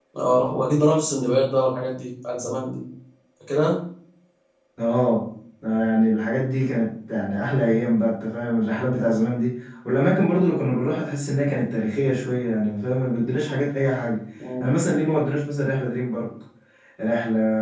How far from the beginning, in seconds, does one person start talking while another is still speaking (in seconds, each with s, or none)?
none